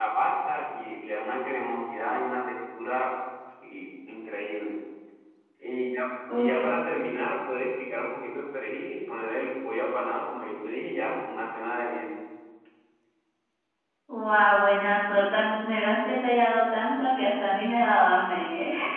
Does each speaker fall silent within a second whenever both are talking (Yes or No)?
Yes